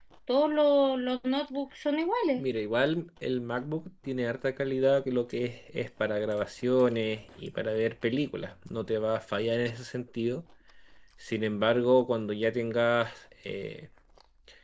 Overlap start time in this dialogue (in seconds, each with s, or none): none